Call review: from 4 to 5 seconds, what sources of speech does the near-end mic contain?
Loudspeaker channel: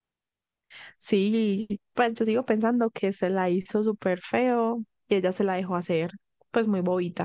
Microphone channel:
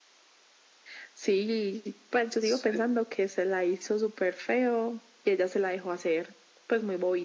echo only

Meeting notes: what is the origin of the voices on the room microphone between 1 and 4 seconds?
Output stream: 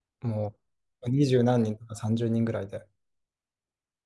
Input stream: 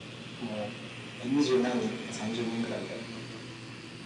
echo only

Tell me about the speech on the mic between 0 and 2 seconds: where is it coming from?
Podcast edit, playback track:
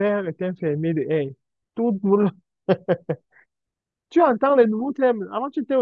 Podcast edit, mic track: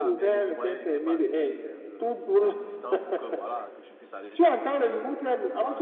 both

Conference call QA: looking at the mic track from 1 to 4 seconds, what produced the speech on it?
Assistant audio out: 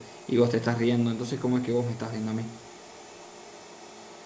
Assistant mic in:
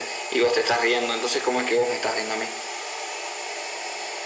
echo only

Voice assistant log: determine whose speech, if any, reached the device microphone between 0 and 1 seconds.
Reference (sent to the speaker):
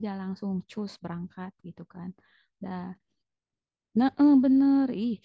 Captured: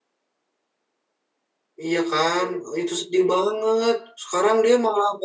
neither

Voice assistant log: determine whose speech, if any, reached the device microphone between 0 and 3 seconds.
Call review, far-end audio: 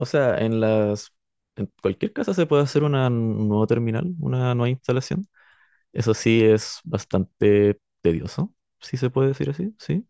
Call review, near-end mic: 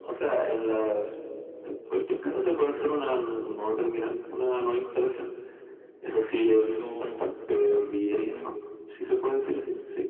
echo only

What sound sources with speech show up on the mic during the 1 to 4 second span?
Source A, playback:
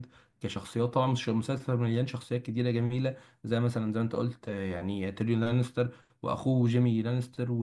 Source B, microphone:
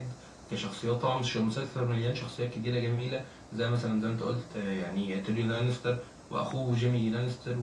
echo only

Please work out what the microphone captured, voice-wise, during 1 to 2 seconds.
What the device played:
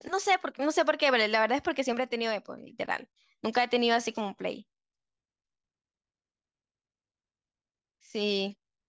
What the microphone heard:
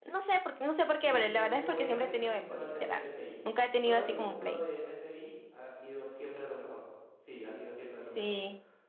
both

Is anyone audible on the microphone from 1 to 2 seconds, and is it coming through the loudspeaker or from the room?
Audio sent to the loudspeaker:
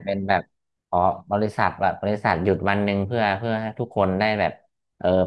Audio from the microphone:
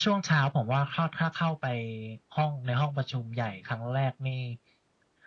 user only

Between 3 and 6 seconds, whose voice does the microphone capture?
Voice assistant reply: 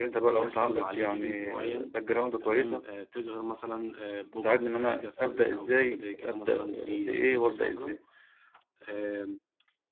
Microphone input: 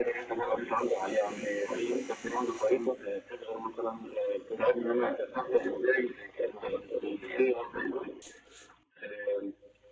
echo only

